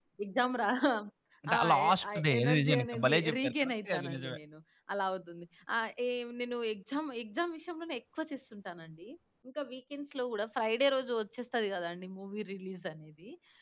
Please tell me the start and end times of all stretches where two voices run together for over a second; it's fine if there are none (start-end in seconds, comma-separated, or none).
1.5-4.4